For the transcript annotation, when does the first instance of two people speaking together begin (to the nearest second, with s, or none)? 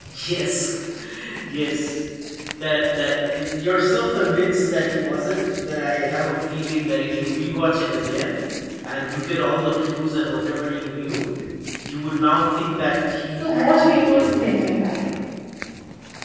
13 s